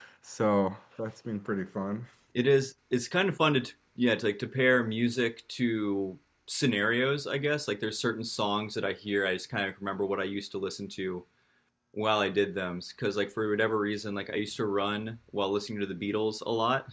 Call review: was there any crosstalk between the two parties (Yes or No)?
No